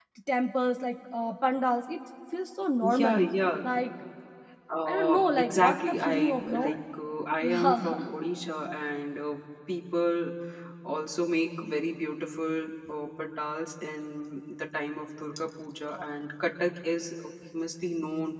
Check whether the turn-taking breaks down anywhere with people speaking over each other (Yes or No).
Yes